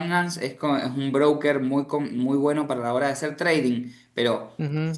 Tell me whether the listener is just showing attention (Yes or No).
Yes